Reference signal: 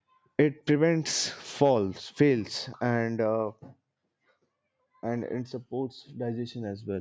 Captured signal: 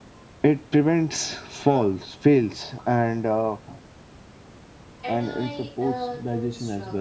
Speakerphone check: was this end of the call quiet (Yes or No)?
No